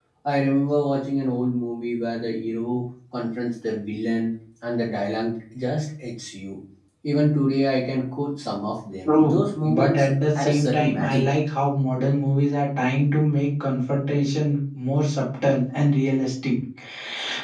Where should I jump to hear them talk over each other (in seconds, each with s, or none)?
9.0 s